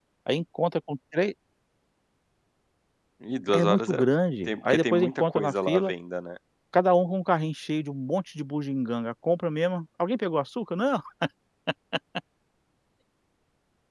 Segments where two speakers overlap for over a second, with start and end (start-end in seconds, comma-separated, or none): 4.5-5.9